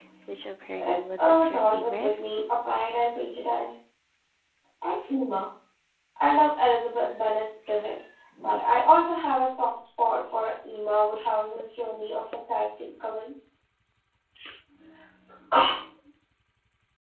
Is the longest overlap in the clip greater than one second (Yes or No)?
Yes